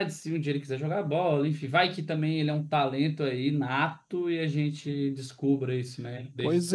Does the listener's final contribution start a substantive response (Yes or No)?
Yes